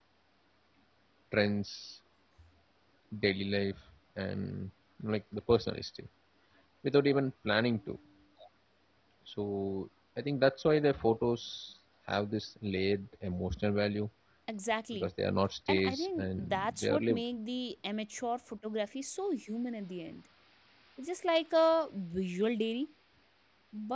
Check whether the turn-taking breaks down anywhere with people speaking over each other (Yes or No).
Yes